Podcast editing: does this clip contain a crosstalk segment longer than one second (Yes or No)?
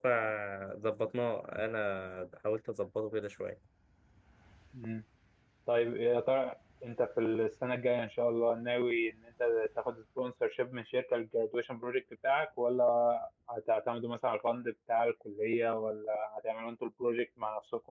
No